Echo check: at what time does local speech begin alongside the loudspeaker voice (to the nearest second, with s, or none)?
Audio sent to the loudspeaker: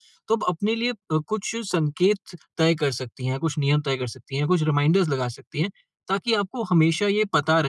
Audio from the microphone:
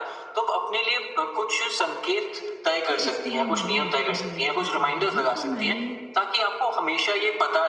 3 s